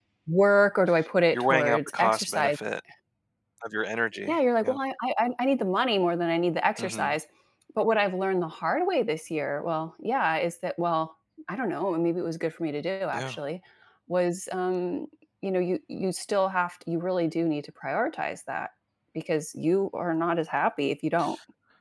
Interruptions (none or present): present